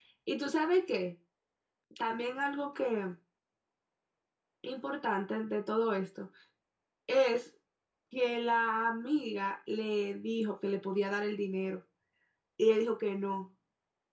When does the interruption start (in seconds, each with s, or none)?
none